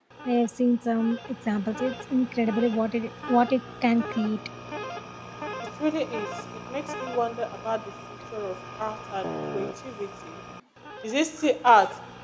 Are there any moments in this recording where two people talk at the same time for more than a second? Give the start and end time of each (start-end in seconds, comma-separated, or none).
none